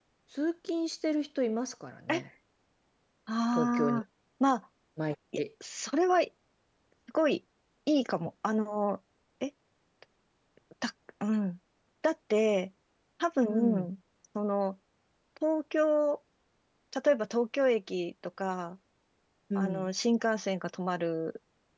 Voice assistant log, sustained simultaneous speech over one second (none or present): none